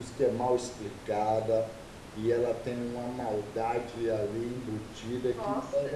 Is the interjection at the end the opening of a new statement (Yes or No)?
No